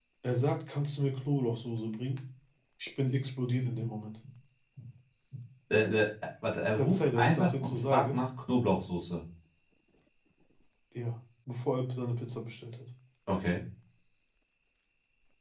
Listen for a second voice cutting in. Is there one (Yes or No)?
Yes